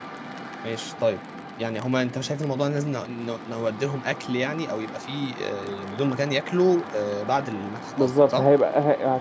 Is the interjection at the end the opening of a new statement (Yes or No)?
Yes